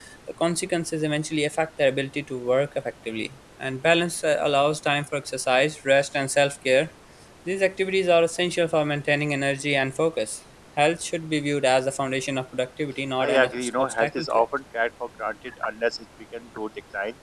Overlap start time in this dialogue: 13 s

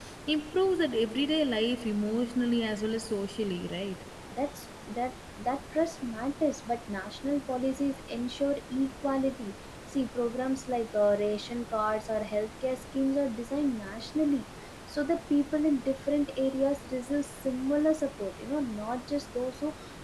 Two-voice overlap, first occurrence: none

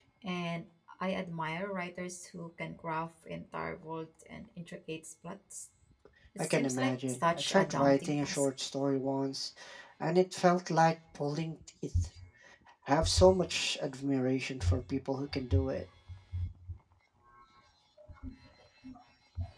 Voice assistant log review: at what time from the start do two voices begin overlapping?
6 s

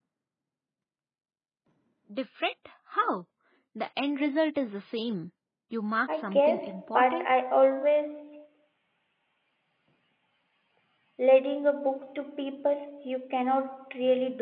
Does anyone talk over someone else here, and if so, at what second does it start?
6 s

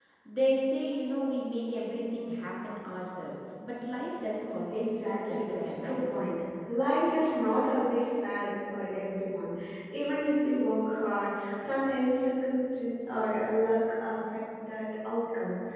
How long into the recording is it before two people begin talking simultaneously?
5 s

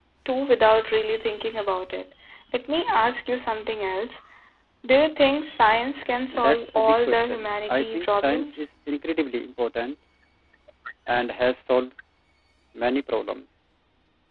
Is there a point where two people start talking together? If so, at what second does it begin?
6 s

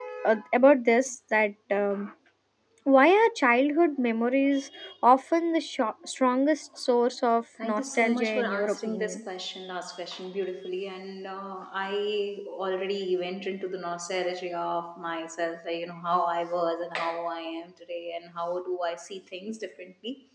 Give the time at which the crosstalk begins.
8 s

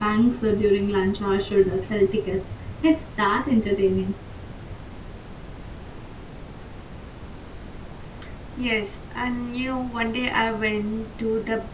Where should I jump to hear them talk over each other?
none

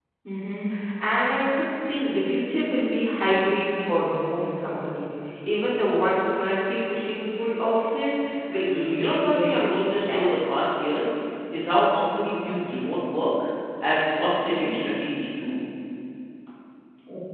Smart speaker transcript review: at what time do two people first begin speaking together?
9 s

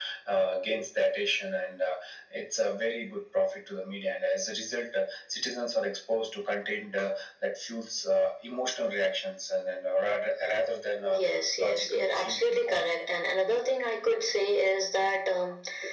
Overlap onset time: 11 s

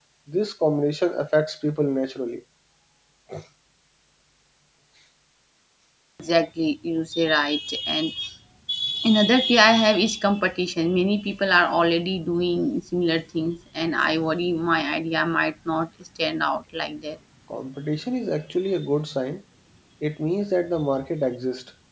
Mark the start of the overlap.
none

